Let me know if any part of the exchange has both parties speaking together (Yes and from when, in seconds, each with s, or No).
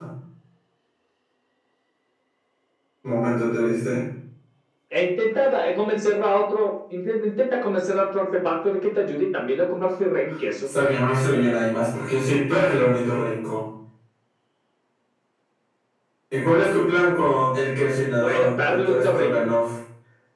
Yes, from 18.1 s